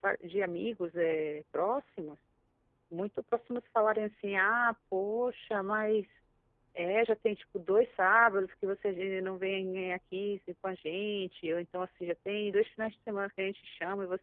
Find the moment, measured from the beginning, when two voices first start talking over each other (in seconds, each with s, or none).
none